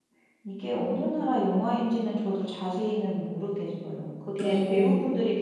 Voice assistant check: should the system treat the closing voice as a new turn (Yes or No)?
No